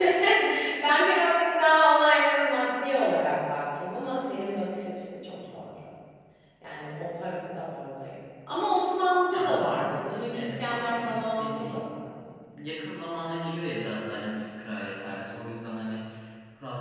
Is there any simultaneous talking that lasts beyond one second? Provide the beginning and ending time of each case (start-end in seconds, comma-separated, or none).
9.3-11.9